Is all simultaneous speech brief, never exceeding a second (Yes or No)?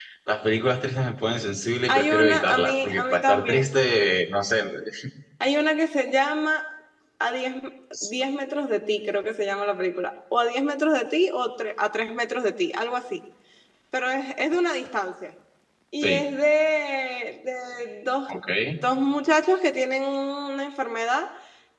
No